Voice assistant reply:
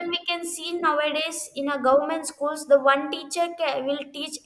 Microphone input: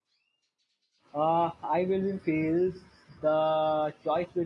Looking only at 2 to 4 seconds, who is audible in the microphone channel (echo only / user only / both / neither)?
user only